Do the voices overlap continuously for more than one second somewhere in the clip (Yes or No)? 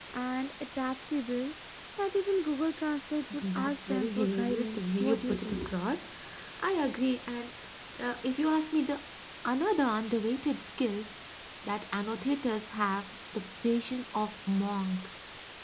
Yes